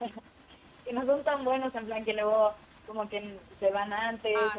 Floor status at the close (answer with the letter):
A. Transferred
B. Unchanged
A